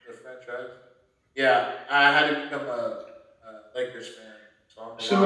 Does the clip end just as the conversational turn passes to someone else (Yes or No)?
Yes